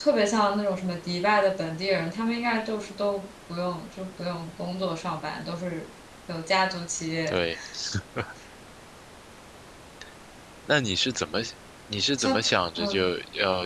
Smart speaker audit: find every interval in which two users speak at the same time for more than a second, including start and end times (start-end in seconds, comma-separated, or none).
none